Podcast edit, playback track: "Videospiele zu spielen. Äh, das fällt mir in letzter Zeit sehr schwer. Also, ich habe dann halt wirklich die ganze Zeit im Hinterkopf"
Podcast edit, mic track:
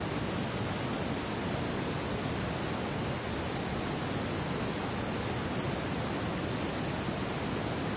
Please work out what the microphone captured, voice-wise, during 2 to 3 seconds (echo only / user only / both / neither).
neither